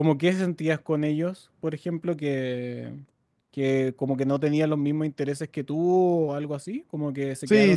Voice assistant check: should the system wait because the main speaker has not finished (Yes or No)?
No